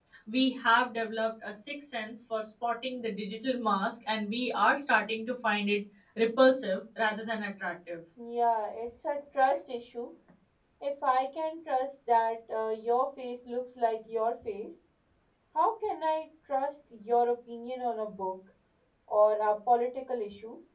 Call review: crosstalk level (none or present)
none